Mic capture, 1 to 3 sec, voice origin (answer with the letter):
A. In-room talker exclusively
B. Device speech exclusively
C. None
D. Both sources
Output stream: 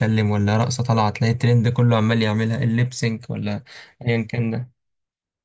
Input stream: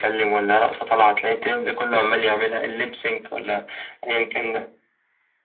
B